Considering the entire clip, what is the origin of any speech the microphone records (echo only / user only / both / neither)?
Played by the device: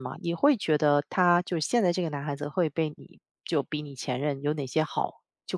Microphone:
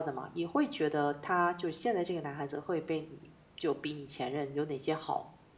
echo only